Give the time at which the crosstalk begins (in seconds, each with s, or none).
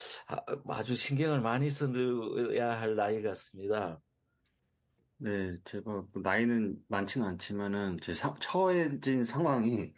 none